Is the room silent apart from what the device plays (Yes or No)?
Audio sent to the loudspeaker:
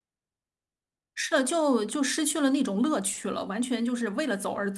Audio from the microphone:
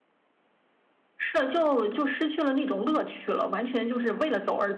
Yes